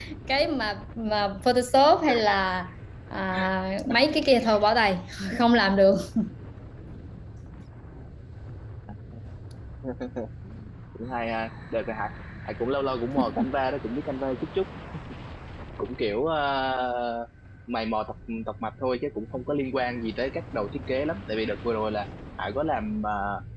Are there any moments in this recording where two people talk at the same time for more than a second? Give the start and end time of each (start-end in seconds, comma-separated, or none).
none